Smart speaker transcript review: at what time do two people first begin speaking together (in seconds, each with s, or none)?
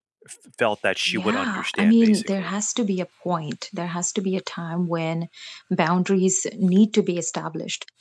1.1 s